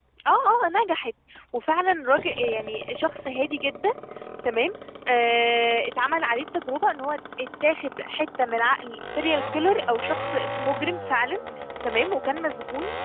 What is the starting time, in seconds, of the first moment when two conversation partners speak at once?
none

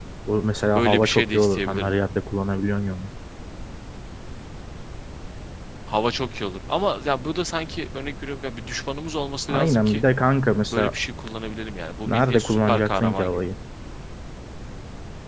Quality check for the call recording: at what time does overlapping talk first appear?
0.7 s

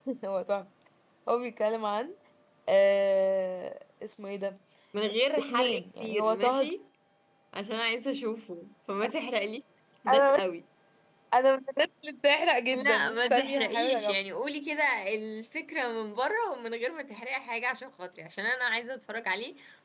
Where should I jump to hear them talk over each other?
5.5 s

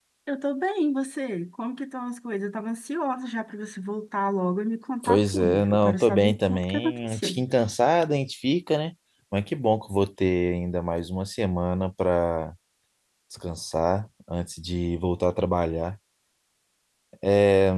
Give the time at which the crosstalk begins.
5.0 s

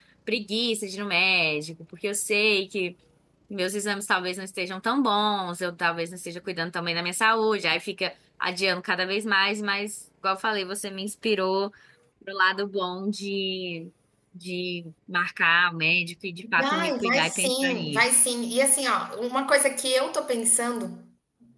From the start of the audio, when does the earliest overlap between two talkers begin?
16.4 s

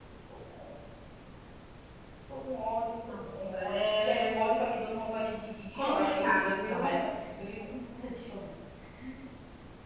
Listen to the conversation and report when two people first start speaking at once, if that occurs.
3.1 s

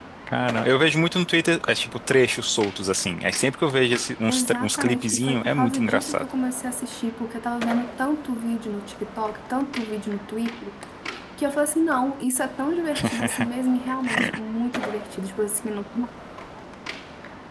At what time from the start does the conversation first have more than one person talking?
4.3 s

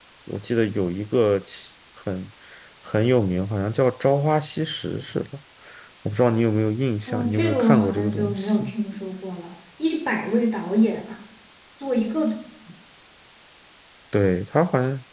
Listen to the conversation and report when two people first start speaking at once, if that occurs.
7.1 s

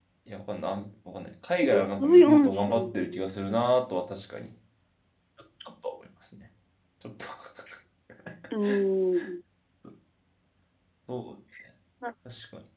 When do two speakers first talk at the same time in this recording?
1.6 s

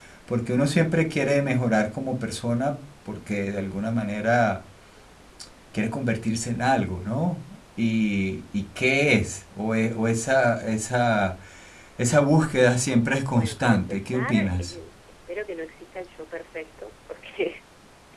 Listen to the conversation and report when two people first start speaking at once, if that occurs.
13.3 s

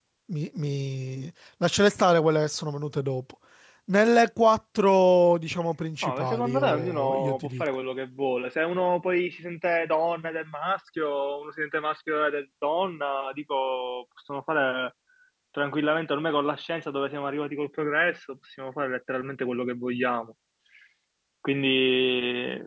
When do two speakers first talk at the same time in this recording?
6.0 s

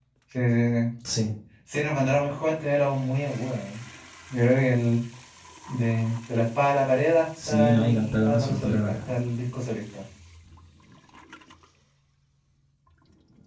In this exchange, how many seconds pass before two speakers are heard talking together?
7.4 s

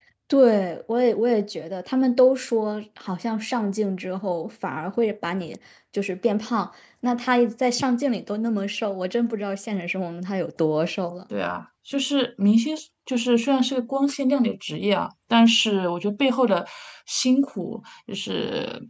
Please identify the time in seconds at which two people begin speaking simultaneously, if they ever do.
none

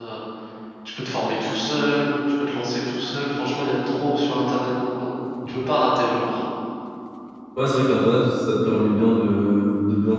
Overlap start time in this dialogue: none

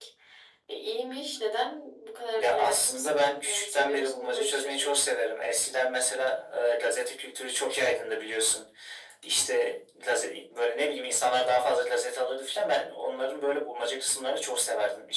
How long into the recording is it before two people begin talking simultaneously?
2.4 s

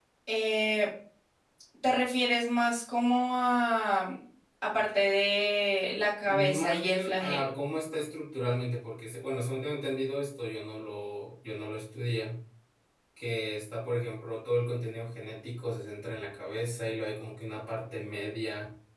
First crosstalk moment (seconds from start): 6.2 s

